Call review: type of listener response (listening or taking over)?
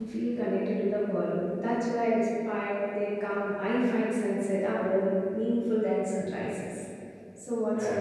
taking over